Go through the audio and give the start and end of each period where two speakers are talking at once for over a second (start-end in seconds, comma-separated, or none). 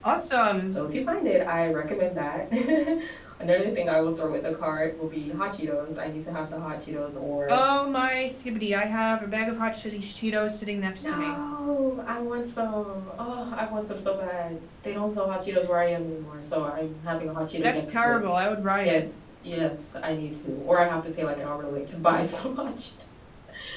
none